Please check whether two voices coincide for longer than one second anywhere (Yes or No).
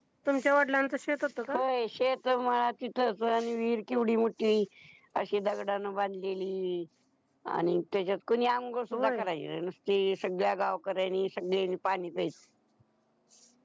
No